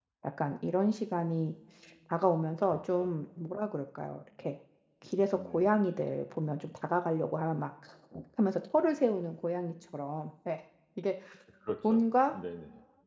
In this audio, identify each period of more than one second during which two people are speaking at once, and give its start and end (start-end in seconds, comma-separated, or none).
none